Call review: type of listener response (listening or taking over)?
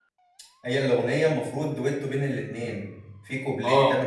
listening